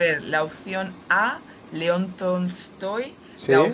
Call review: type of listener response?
listening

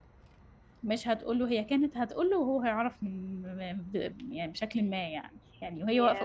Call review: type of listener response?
listening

